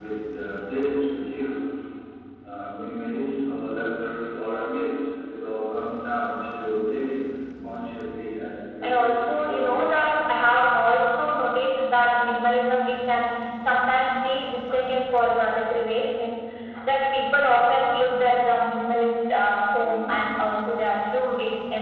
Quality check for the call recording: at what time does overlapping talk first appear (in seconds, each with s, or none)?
8.8 s